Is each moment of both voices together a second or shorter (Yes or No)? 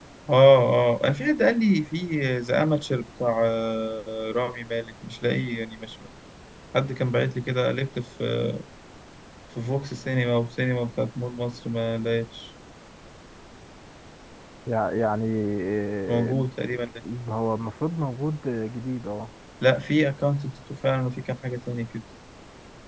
Yes